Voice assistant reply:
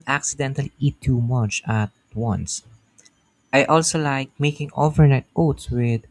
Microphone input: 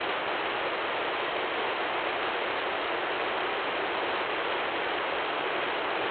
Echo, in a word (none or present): none